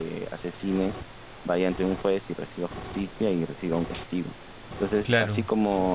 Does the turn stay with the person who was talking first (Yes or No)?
Yes